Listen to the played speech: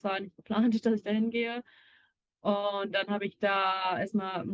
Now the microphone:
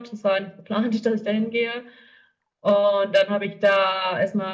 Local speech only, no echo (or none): none